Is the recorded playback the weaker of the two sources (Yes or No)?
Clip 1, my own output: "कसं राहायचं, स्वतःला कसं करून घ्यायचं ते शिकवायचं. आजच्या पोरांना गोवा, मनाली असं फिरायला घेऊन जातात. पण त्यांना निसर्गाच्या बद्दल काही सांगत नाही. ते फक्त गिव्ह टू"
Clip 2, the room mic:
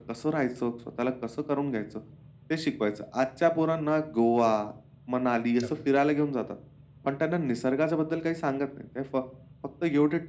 No